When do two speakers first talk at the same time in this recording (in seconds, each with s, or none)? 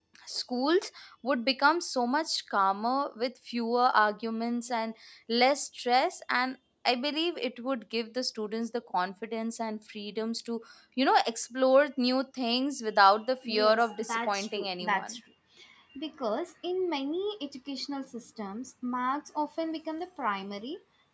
13.4 s